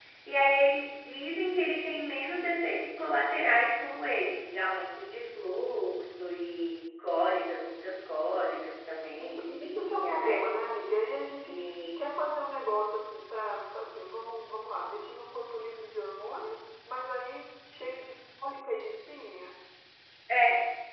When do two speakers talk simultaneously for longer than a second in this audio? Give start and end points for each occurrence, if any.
9.1-10.5

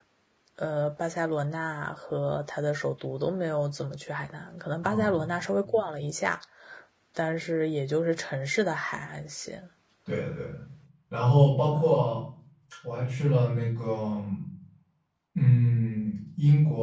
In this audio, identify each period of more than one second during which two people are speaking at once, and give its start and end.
none

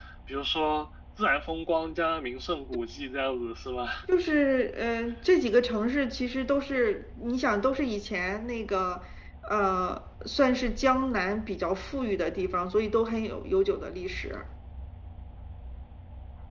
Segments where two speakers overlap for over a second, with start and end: none

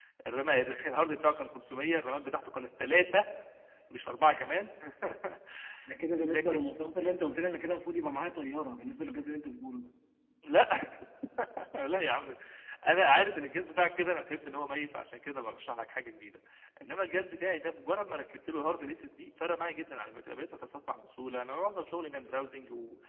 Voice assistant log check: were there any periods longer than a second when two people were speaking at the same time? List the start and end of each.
none

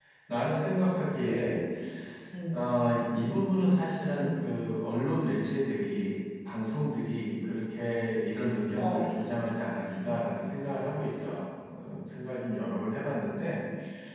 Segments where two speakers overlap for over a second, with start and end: none

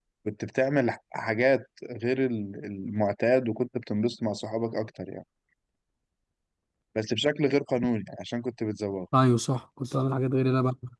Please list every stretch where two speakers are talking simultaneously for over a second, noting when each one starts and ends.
none

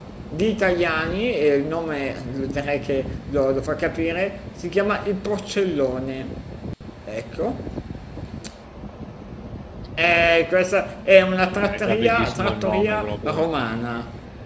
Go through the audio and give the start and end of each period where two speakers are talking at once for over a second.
11.6-13.4

